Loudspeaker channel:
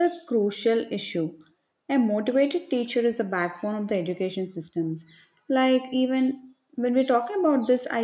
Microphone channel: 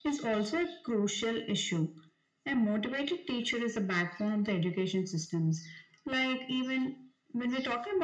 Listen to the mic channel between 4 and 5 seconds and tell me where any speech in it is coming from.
echo only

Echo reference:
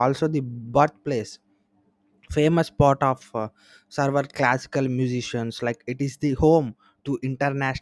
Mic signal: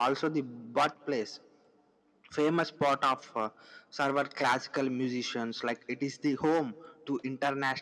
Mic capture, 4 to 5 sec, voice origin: echo only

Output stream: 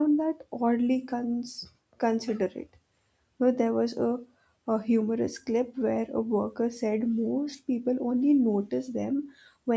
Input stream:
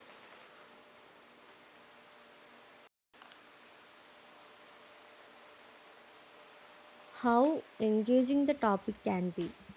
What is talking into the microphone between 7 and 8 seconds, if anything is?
user only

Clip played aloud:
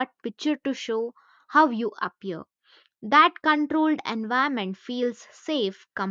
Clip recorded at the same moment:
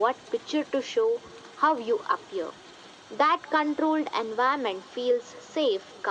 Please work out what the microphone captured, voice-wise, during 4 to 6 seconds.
echo only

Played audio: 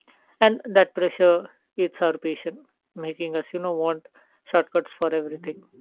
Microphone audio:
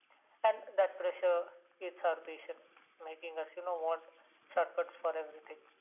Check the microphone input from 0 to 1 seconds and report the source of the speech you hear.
echo only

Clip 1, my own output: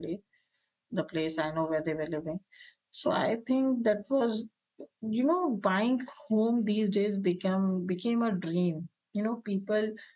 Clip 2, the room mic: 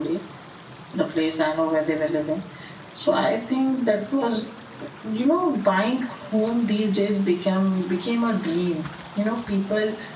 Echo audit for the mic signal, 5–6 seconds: echo only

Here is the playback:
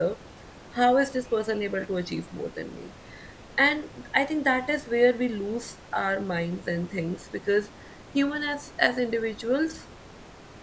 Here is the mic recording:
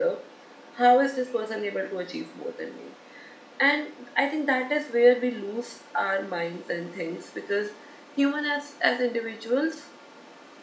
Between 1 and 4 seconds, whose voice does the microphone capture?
echo only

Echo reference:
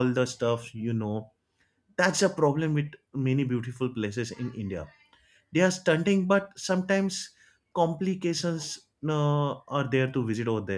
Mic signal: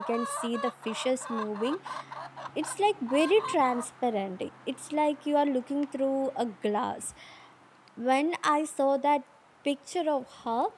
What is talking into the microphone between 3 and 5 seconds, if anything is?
user only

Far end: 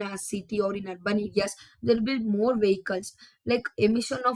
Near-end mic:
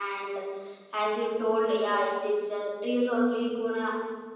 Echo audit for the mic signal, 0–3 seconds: user only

